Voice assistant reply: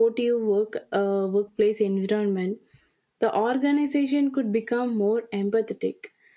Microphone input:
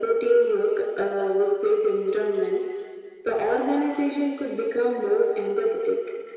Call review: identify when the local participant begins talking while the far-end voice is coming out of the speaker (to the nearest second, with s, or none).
none